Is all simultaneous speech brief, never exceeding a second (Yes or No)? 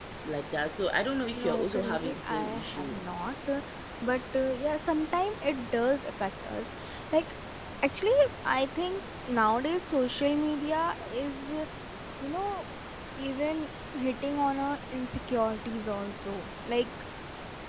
No